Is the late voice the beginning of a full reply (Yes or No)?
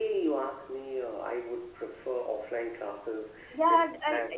Yes